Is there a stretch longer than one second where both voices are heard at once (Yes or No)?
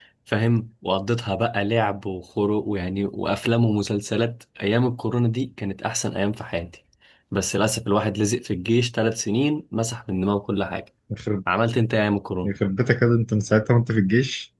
No